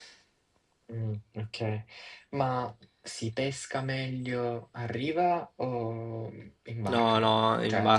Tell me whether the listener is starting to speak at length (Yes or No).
Yes